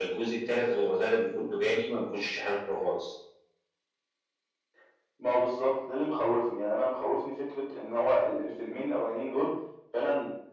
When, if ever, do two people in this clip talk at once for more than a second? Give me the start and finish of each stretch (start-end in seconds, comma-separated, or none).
none